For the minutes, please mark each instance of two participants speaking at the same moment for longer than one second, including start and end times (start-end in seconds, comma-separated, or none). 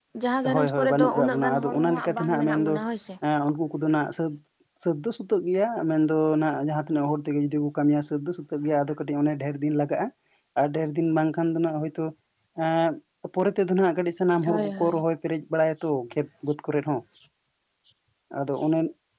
0.5-2.7